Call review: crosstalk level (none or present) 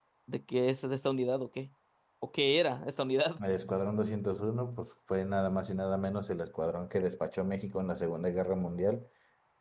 none